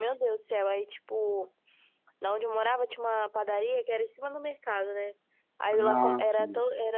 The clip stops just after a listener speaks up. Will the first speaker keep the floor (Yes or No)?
Yes